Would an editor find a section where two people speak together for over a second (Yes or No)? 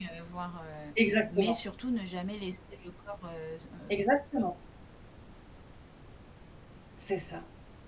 No